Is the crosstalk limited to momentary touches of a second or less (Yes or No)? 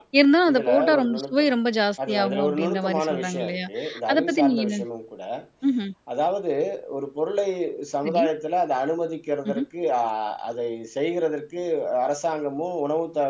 No